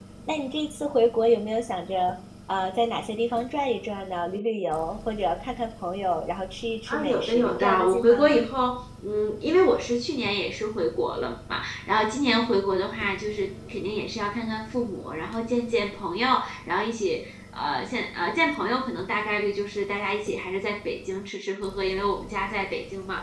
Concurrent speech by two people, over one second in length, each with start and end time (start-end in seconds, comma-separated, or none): 6.9-8.5